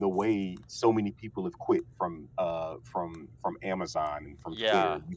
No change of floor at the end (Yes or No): No